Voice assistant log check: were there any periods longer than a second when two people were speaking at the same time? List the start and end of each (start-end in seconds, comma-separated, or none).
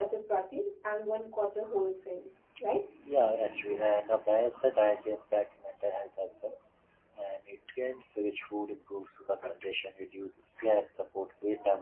none